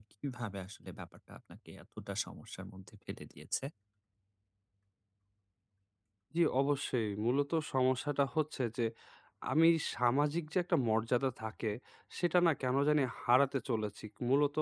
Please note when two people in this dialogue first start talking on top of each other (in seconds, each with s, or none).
none